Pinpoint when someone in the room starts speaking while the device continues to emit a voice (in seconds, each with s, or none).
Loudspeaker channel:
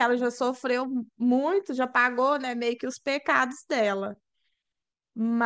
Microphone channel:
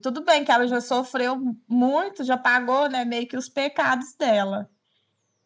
none